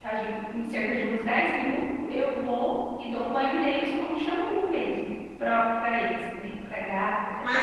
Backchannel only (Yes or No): No